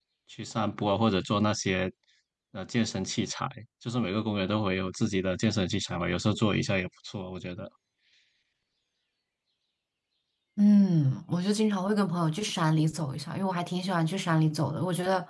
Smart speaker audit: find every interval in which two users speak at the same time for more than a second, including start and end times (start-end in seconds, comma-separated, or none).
none